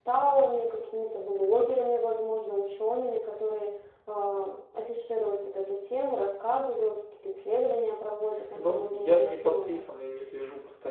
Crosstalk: present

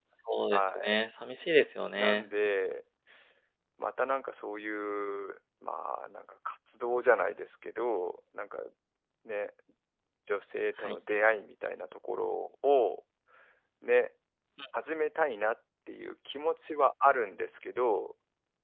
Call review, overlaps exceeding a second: none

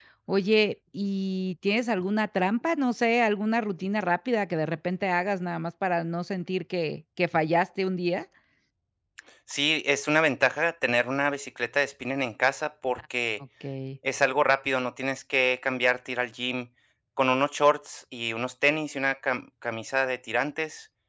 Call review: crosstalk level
none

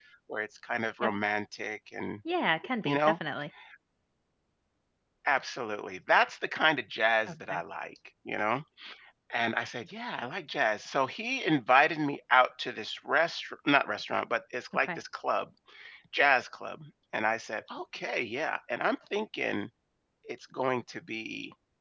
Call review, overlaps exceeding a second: none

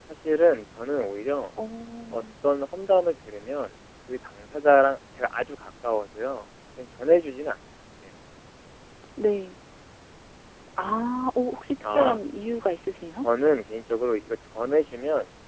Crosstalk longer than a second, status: none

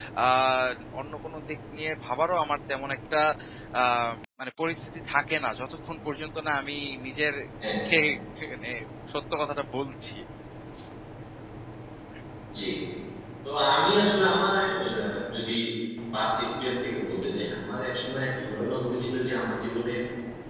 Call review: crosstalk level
none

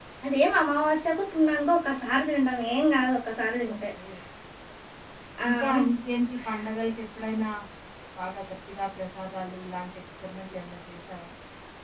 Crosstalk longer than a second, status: none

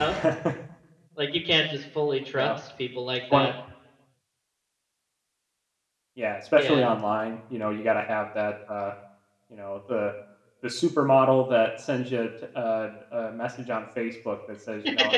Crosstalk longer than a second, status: none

